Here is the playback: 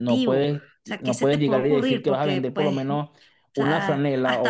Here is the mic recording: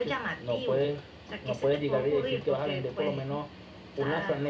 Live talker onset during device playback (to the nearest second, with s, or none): none